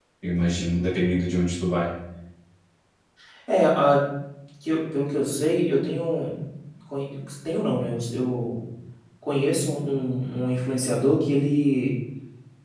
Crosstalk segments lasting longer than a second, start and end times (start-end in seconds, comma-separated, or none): none